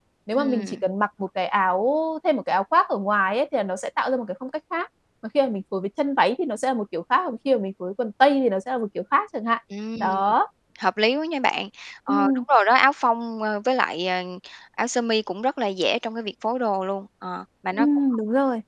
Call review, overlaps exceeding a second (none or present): none